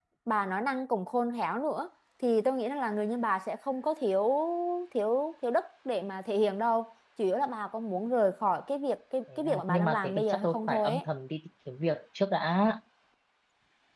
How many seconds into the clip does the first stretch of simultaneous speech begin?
9.3 s

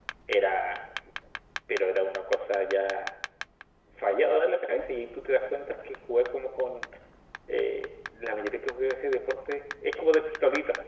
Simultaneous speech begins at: none

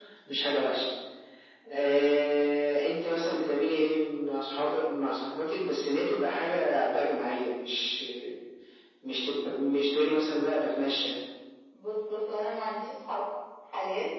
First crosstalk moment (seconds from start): none

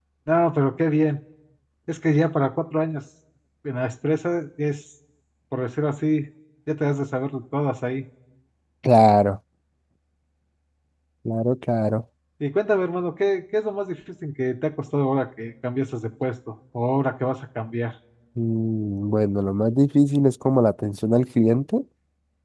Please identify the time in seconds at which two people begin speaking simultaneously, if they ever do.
none

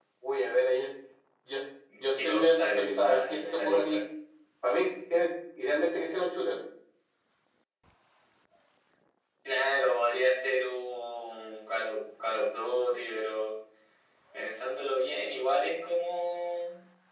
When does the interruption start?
2.1 s

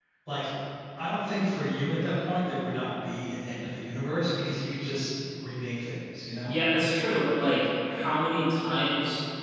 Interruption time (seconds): none

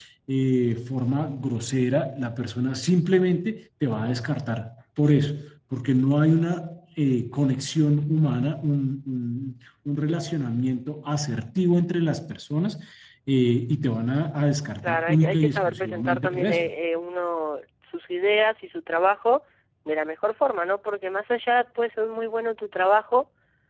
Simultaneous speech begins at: 14.8 s

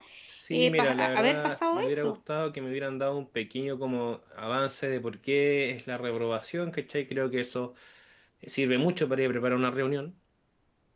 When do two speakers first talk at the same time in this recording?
0.5 s

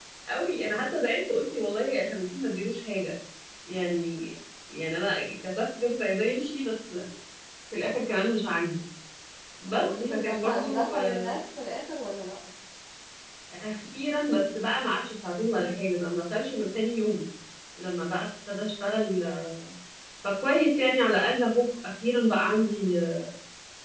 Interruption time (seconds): 9.7 s

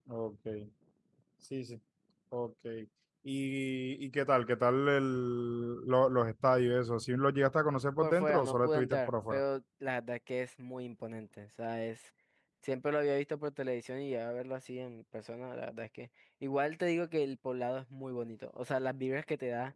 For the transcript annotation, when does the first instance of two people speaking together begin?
8.0 s

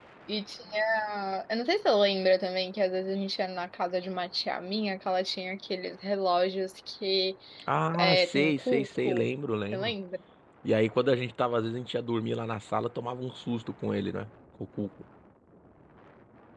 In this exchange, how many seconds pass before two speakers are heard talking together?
8.0 s

